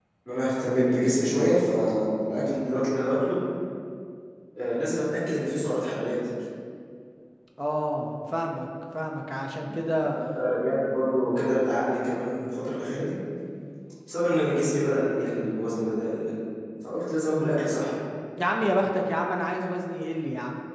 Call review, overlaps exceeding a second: none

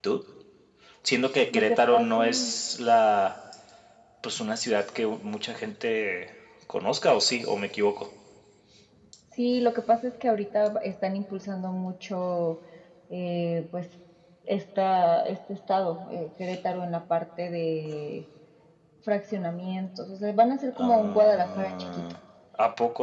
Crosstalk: present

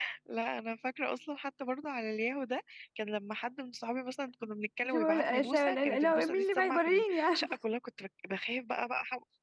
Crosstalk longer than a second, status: present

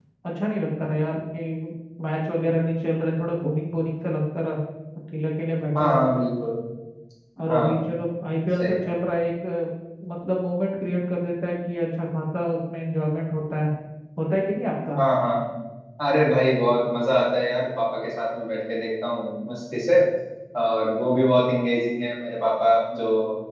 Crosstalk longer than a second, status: none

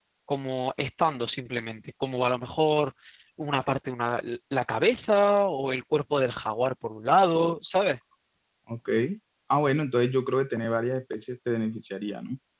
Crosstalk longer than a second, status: none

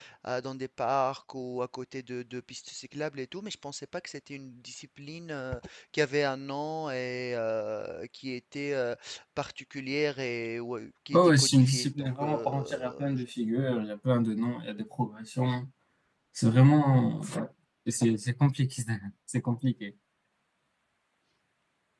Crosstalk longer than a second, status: present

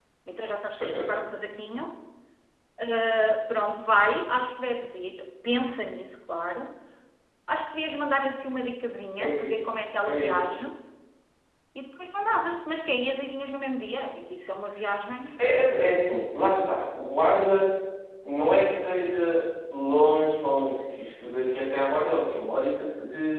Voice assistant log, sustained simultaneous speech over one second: none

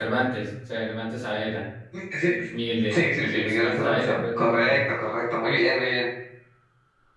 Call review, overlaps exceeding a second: present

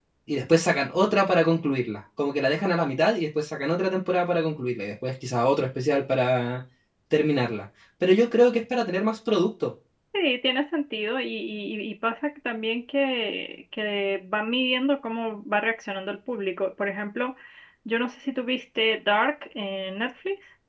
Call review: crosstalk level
none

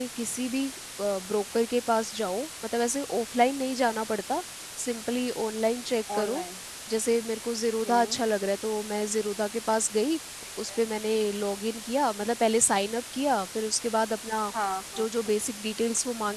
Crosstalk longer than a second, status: none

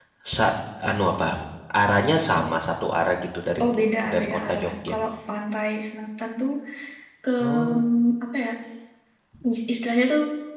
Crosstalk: present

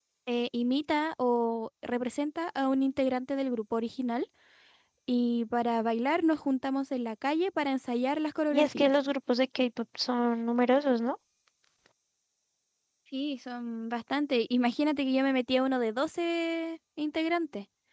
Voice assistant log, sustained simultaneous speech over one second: none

